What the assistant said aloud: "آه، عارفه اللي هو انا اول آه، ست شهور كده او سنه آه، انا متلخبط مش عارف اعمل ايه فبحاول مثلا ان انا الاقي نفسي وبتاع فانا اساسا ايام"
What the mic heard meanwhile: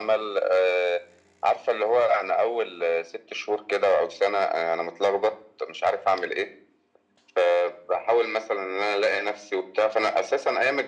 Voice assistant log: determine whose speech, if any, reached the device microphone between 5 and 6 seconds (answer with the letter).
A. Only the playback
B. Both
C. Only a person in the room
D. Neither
A